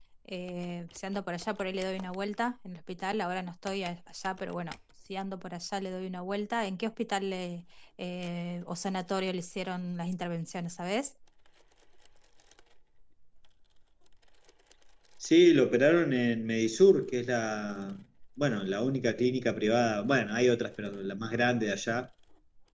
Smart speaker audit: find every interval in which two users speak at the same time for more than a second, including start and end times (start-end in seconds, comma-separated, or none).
none